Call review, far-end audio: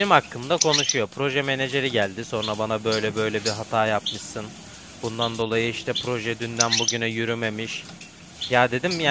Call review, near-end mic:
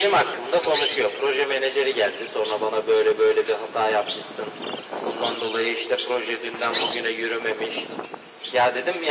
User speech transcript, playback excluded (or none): none